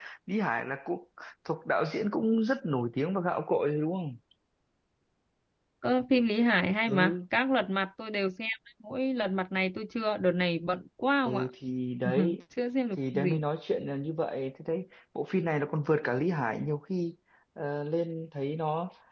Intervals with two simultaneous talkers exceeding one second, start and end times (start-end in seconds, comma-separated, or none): none